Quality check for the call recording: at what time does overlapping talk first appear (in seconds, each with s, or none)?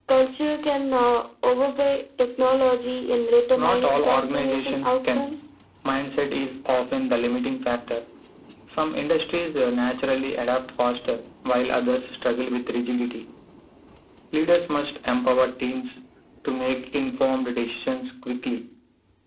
3.5 s